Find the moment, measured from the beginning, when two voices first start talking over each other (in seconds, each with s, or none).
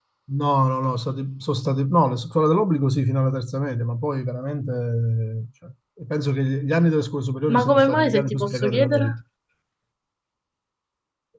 7.5 s